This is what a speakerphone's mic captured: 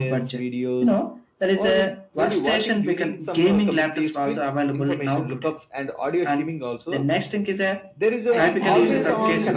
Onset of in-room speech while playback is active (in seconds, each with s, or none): 8.3 s